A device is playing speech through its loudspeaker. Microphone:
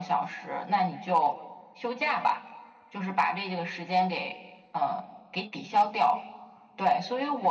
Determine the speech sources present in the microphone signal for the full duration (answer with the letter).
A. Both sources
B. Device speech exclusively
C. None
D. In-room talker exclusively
B